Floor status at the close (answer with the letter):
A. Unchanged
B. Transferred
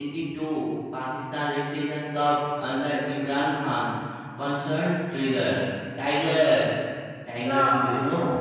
B